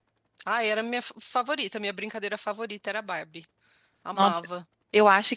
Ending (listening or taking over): taking over